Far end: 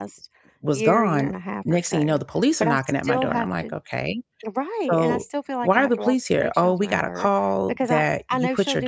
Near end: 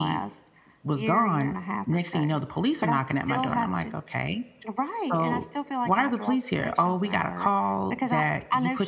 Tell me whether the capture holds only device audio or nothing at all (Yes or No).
Yes